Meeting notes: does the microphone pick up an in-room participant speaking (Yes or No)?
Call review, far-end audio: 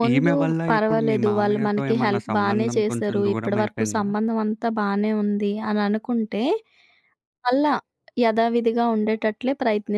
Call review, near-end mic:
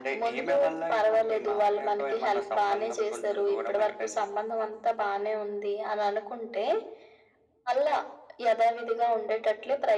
No